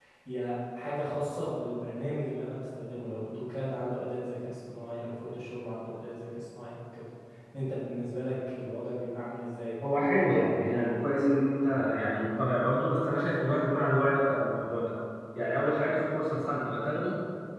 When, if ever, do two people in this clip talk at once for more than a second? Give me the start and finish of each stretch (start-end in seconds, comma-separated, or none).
none